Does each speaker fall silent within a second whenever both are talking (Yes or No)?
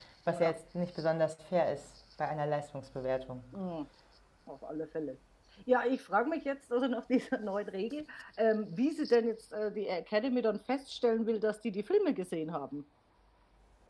Yes